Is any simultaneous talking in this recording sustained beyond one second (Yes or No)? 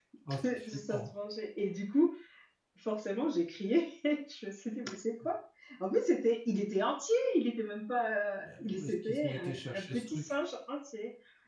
Yes